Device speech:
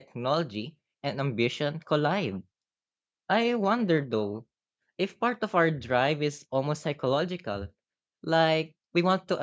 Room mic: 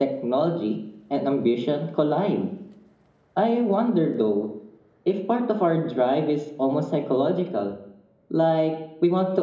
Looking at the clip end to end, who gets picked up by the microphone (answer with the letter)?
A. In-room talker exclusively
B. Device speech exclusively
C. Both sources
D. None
B